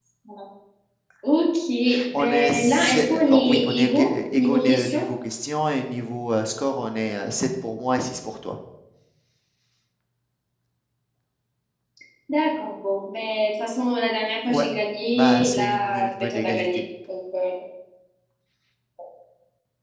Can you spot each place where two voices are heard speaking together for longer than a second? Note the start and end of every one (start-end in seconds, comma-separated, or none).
2.2-5.1, 15.2-16.7